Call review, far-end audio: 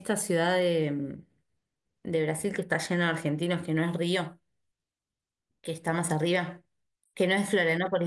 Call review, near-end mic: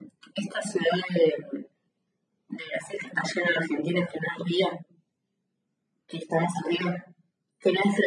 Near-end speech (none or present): none